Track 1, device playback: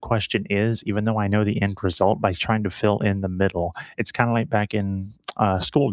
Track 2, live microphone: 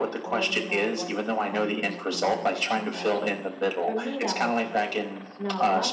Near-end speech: present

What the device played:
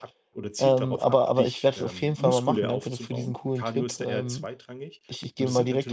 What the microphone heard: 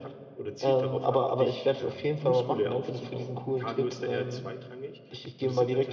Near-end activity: none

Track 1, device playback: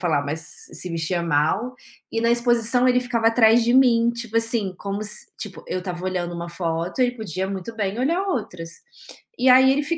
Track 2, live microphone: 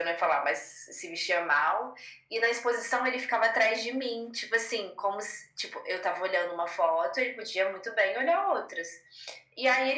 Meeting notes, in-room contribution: none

